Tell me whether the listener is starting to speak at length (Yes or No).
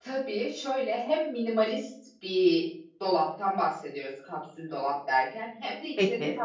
No